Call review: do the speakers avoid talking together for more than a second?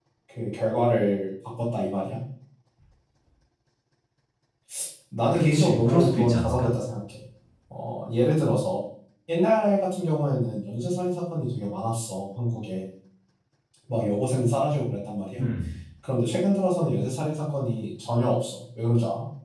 No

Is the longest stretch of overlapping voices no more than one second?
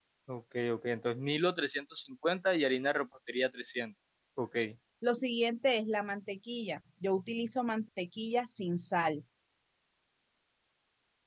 Yes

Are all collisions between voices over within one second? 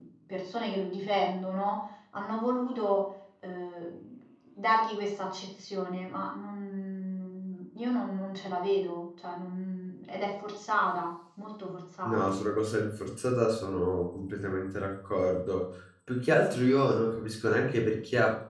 Yes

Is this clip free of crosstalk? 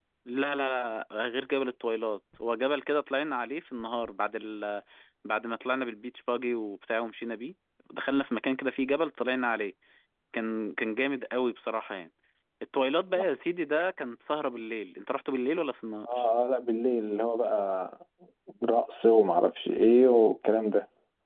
Yes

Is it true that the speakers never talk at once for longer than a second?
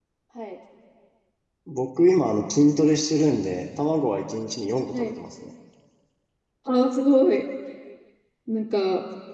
Yes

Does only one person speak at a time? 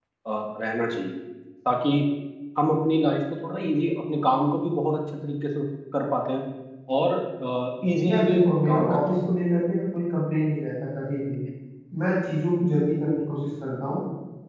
No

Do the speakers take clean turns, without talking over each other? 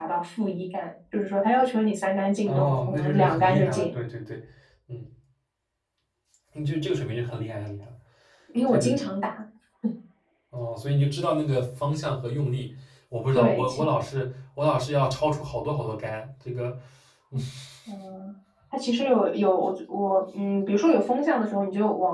No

